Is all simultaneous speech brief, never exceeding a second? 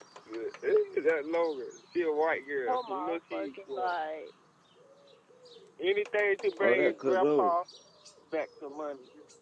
No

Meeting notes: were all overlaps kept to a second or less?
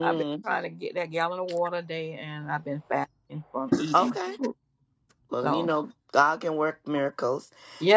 Yes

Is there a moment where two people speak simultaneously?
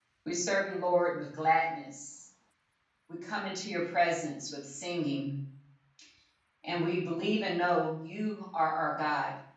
No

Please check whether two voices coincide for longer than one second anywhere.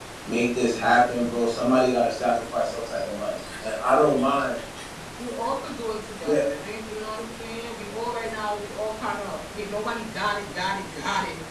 No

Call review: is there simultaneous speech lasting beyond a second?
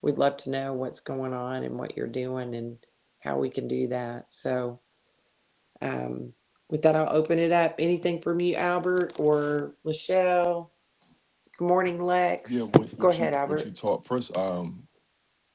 Yes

